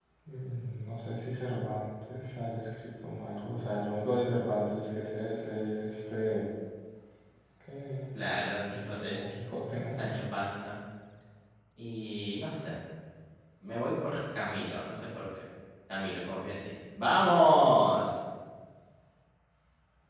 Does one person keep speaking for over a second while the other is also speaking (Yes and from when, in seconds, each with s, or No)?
No